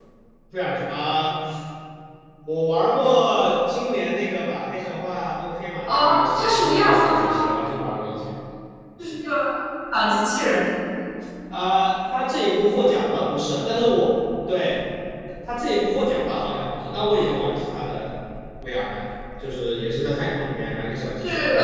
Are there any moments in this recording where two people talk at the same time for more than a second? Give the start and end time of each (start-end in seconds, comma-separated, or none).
5.9-7.4